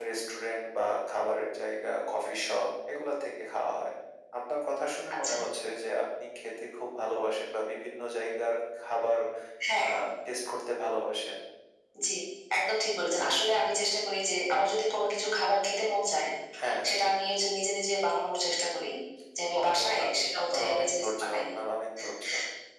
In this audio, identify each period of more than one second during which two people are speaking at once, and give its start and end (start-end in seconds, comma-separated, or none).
19.6-21.4